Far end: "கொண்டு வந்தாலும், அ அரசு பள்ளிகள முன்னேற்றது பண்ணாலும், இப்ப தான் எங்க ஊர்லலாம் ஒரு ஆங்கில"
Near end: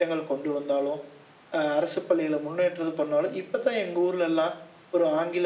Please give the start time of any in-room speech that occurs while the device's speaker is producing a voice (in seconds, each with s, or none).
none